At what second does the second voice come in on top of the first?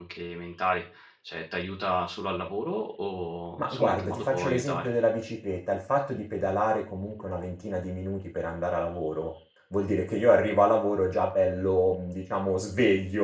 4 s

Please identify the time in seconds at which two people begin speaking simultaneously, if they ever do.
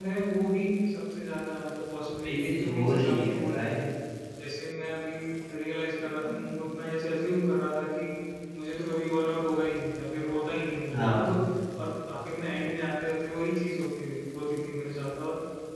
2 s

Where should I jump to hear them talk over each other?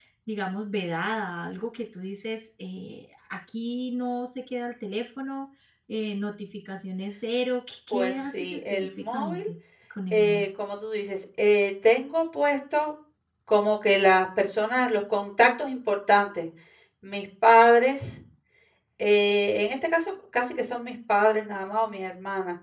8 s

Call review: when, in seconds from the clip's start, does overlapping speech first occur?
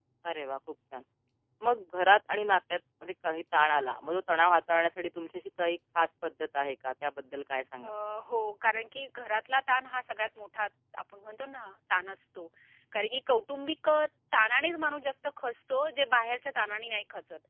none

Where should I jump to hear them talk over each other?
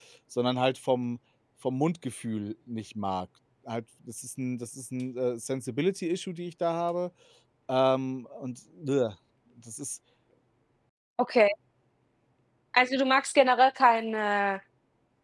none

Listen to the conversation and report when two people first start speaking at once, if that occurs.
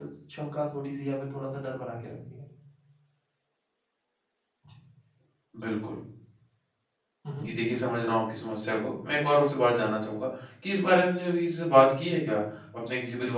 none

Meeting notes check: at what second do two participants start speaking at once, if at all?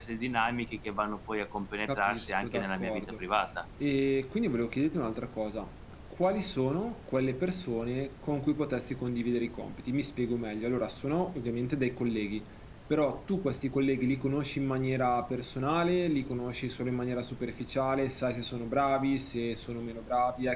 2 s

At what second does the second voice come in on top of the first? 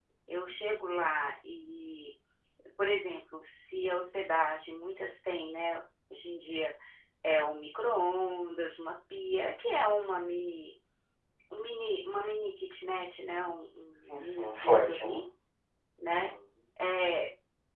14 s

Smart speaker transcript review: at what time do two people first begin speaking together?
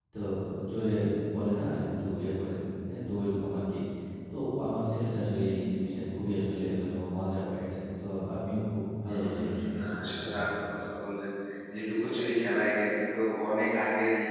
9 s

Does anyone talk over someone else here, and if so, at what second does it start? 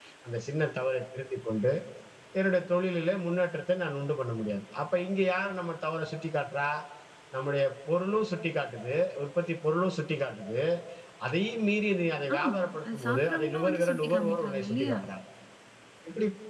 12 s

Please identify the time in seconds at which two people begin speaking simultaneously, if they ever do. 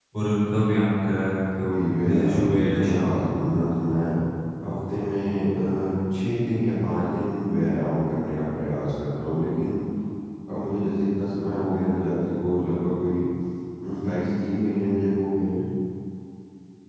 2 s

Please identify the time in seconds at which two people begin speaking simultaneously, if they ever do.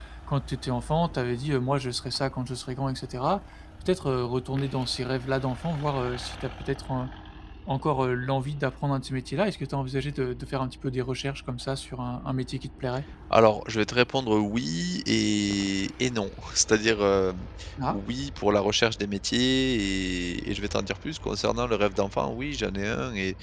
none

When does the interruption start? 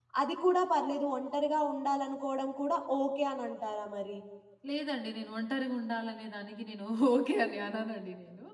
none

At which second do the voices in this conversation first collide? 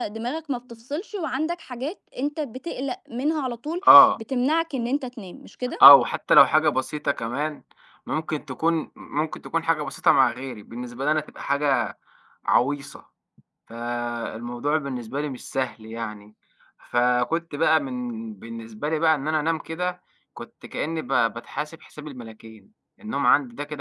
none

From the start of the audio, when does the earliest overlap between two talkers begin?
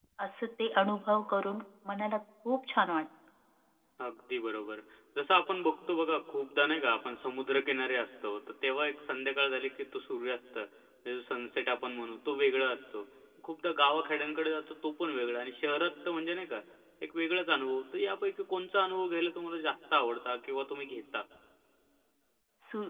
none

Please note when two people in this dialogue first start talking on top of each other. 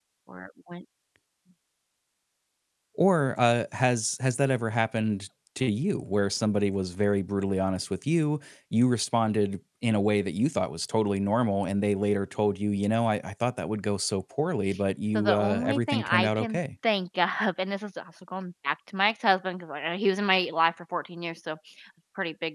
15 s

